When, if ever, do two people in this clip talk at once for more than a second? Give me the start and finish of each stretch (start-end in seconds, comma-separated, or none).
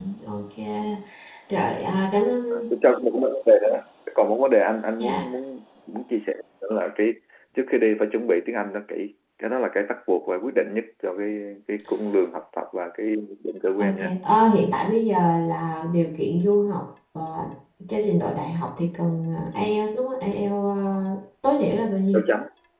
none